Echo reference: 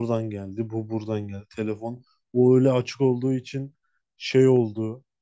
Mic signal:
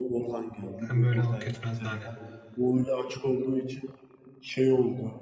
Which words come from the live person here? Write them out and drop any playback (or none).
Hem böyle hak etmez sahne.